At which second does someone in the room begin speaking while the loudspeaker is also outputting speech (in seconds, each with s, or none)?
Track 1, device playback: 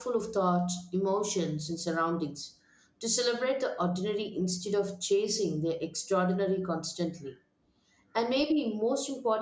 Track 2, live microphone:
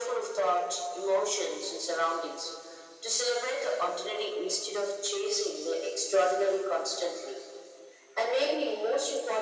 none